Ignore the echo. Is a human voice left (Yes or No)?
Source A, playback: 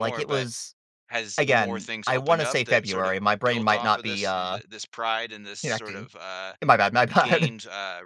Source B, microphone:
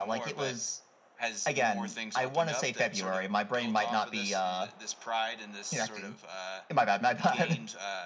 No